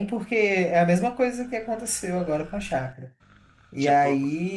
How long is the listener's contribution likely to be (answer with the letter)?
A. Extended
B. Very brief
B